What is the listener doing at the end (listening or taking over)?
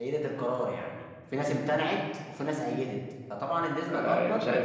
taking over